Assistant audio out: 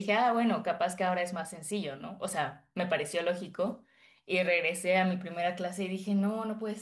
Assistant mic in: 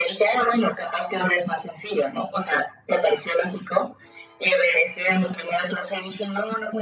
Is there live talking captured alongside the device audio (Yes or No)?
No